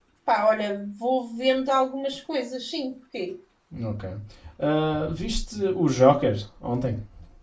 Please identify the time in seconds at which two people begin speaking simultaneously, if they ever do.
none

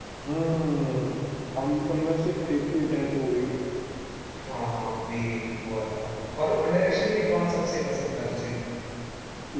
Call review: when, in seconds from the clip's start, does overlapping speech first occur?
none

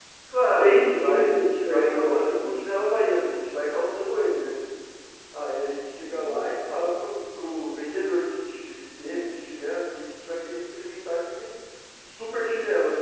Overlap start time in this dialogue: 0.6 s

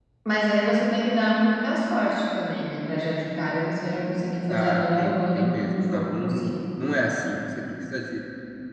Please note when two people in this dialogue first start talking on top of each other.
4.5 s

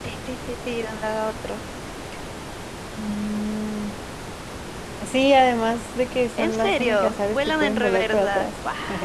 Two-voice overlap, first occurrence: 6.4 s

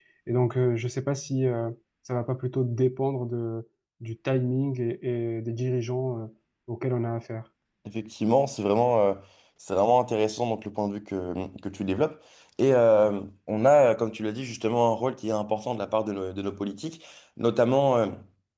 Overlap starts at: none

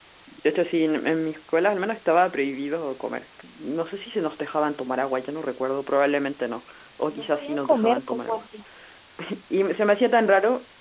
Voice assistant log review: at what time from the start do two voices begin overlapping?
7.1 s

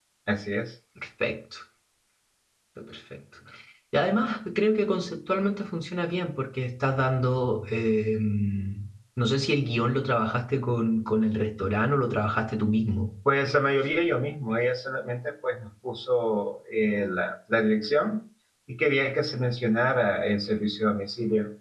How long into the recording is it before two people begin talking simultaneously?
none

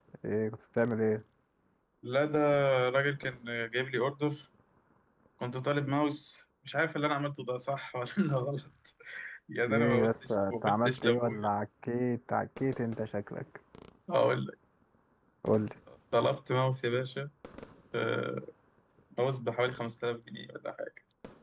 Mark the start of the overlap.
9.7 s

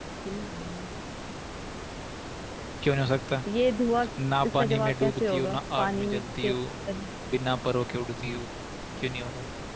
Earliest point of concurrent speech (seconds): 4.6 s

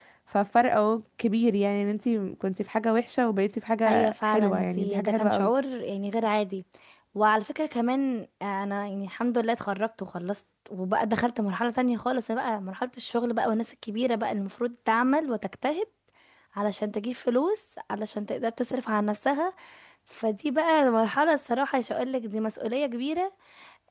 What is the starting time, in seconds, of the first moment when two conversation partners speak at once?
3.9 s

